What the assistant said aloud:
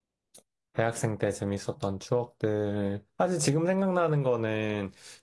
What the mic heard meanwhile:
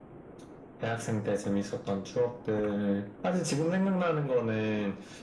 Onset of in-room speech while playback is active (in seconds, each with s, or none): none